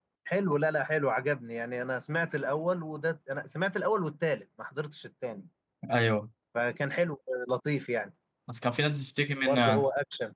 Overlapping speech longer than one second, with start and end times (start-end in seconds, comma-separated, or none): none